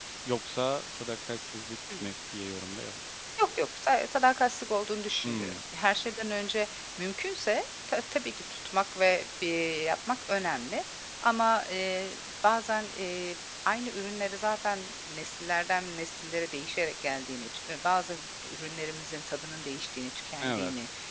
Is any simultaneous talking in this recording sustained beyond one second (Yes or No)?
No